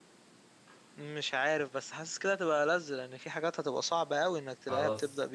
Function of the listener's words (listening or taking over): taking over